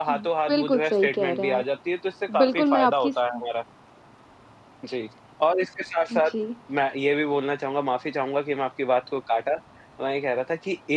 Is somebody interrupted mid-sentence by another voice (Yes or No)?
Yes